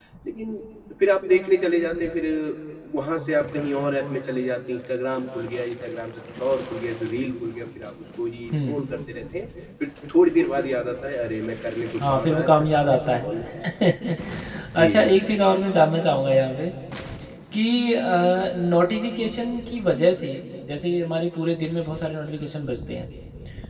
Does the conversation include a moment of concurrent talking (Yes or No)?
Yes